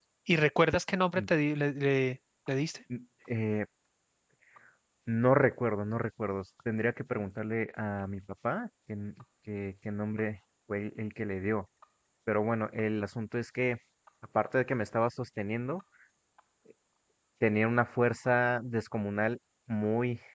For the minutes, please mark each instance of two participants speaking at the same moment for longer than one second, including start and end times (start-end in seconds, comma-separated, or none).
none